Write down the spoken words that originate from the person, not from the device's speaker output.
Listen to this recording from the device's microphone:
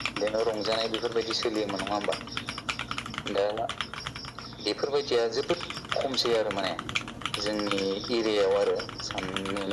none

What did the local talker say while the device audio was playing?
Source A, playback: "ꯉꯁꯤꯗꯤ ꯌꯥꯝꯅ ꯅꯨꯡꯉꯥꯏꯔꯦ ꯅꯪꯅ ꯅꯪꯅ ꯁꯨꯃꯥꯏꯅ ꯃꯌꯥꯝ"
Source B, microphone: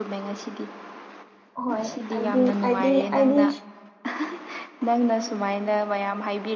ꯍꯣꯏ ꯑꯗꯤ ꯑꯗꯤ ꯑꯗꯤ

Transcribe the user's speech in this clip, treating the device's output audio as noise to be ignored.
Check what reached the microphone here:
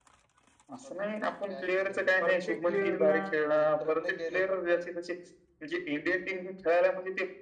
प्रत्येक प्लेअरला

